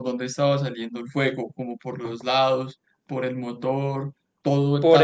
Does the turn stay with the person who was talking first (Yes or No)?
No